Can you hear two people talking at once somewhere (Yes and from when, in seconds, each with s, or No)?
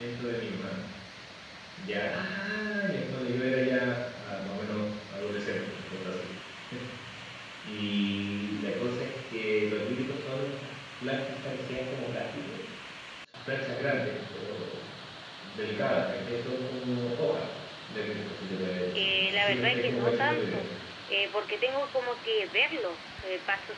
Yes, from 18.9 s